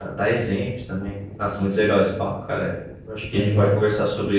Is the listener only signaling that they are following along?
Yes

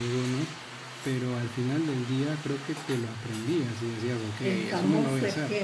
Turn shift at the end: Yes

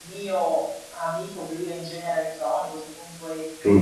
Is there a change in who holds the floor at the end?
No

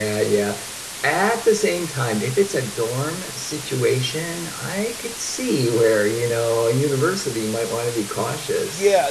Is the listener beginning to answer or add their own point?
Yes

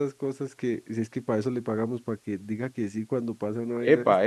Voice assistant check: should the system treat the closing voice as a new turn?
Yes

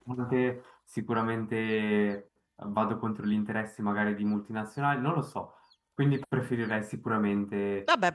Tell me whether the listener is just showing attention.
No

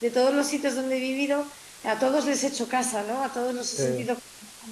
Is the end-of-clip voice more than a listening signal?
No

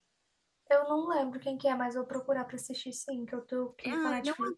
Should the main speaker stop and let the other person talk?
Yes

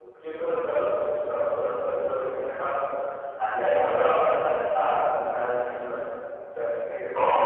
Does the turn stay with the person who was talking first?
No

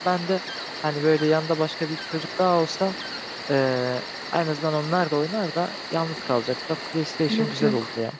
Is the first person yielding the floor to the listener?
Yes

